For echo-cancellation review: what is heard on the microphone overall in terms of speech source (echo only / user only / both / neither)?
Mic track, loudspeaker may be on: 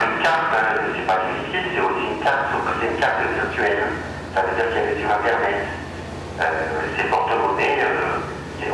echo only